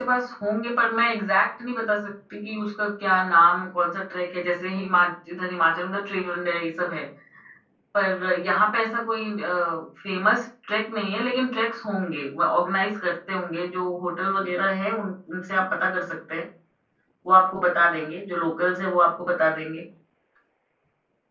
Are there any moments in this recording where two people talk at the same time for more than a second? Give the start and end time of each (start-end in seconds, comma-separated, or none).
none